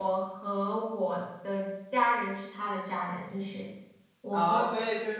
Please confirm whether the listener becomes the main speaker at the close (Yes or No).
Yes